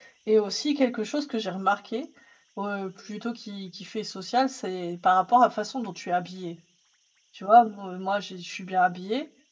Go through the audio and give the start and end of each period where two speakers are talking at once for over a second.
none

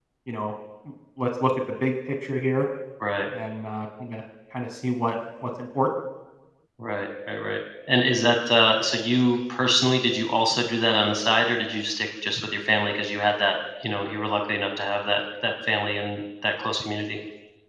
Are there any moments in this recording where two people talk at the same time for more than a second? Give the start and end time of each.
none

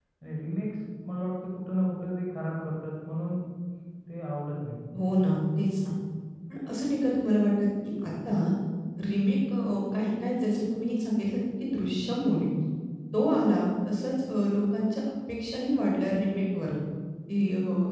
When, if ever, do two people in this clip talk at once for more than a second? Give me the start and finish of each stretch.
none

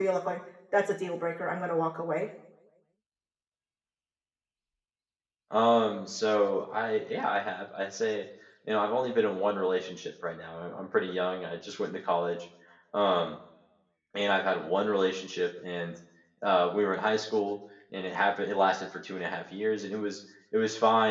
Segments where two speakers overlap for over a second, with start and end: none

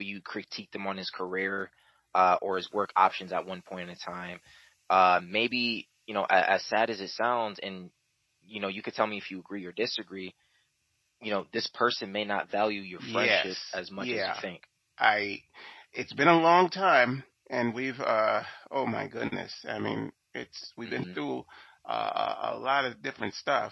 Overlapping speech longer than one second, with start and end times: 13.0-14.4

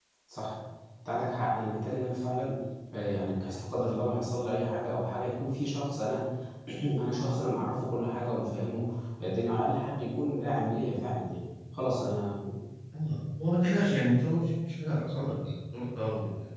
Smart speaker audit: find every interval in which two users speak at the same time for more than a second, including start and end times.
none

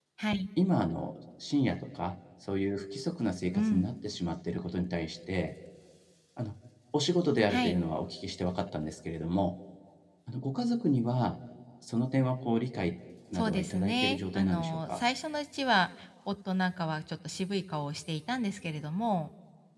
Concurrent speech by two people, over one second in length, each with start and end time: 13.3-15.0

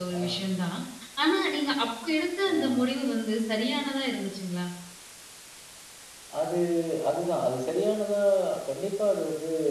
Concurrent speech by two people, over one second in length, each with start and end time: none

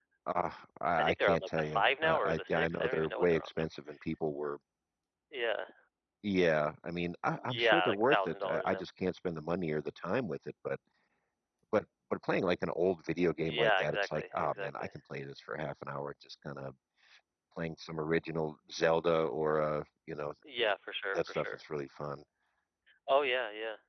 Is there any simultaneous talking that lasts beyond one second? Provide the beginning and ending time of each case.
1.0-3.6, 7.4-8.8, 13.4-14.9

